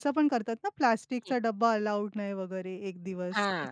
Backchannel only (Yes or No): No